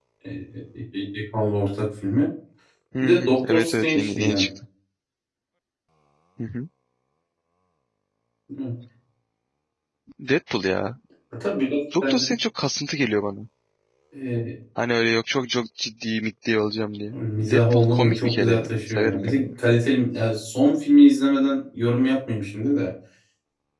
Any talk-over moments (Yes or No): Yes